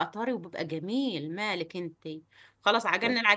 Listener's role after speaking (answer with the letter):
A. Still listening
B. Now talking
A